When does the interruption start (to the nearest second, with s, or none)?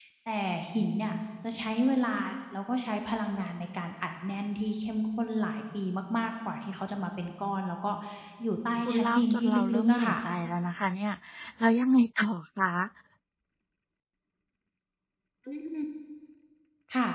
9 s